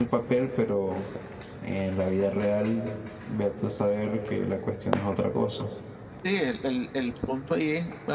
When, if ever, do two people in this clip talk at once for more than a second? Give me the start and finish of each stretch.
none

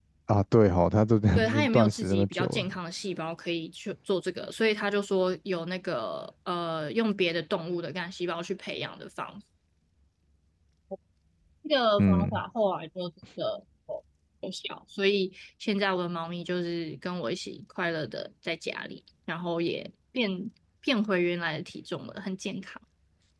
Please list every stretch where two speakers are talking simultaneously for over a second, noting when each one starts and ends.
1.3-2.7

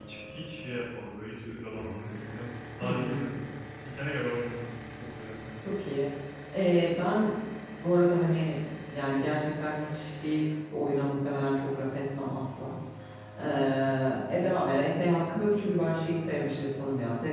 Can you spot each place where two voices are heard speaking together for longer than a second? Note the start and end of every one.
none

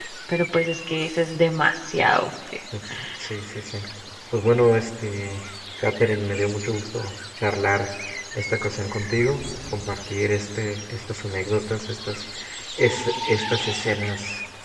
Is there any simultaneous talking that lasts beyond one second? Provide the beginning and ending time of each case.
none

